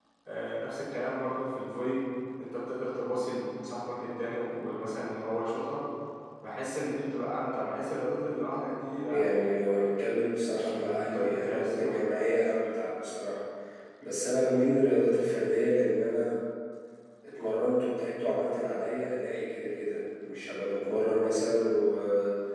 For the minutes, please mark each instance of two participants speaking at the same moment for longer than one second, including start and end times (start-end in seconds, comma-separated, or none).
10.5-12.0